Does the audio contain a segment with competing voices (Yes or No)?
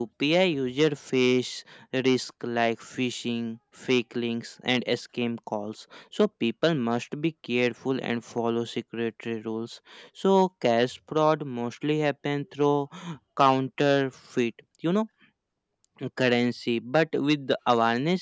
No